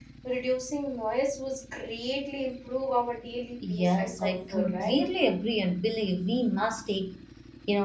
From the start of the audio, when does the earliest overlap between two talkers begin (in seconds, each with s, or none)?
3.6 s